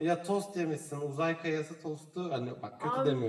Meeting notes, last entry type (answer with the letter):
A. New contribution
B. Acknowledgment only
A